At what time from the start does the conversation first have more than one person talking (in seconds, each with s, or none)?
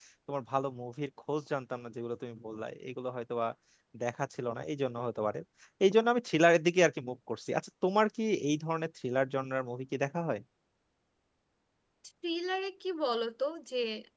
none